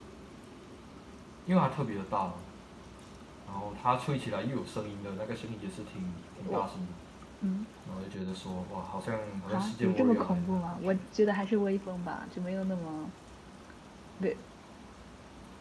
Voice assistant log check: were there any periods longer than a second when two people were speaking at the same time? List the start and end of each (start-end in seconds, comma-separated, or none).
9.5-11.0